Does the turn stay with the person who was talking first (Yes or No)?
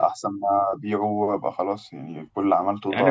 No